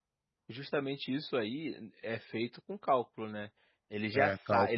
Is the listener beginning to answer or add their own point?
No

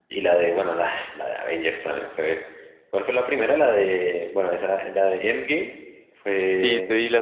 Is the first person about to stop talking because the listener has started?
Yes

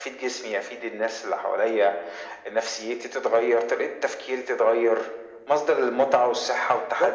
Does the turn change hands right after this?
No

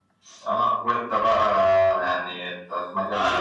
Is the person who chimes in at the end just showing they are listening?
No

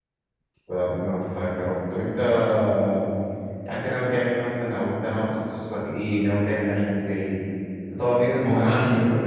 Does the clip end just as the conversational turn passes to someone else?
No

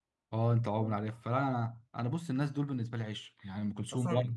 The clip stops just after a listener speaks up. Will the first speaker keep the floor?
No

